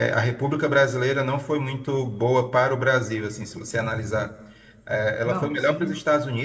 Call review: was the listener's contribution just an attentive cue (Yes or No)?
Yes